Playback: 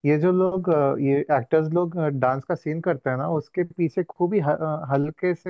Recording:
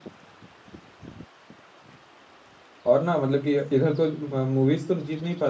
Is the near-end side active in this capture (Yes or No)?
Yes